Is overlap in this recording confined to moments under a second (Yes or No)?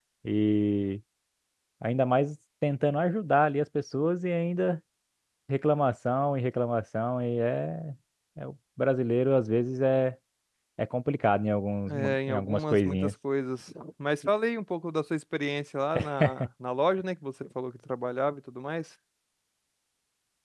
No